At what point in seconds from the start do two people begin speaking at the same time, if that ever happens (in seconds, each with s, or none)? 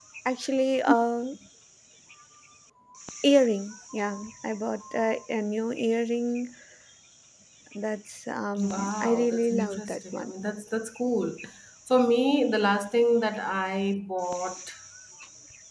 8.6 s